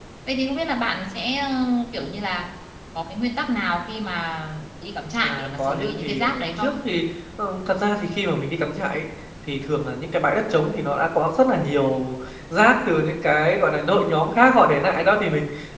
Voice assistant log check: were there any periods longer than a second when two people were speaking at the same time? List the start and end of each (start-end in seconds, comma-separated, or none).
5.2-6.8